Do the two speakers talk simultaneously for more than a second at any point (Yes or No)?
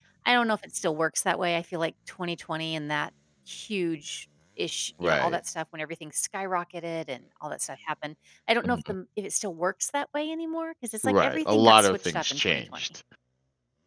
Yes